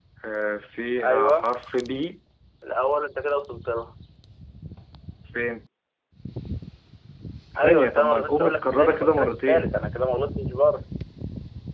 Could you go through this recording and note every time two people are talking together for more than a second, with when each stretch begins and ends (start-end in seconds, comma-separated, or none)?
7.6-9.7